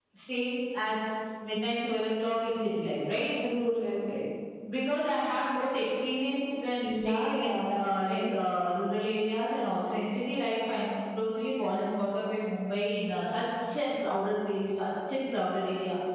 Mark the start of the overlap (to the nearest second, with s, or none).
7 s